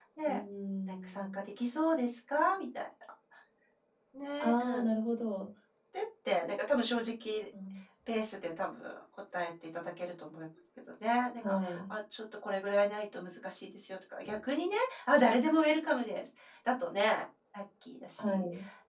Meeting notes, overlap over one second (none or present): none